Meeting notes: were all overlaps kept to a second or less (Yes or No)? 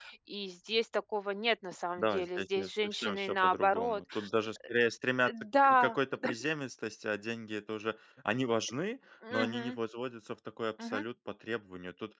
No